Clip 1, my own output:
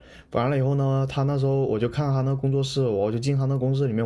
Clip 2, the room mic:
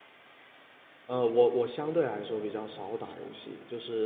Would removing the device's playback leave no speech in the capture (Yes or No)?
No